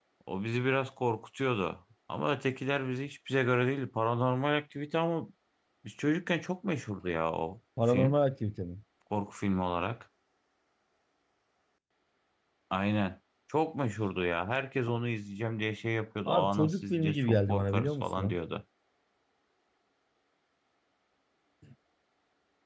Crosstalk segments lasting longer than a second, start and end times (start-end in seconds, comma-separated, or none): 16.3-18.4